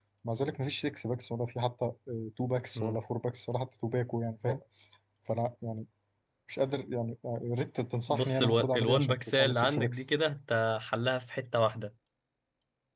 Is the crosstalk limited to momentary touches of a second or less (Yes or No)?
No